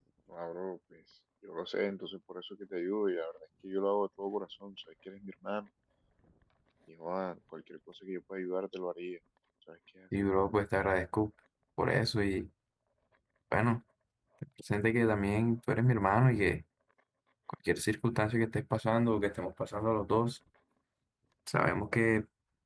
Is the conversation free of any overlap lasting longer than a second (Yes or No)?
Yes